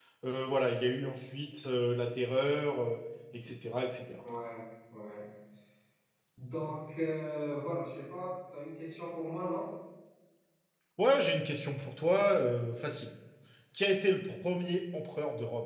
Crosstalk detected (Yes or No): No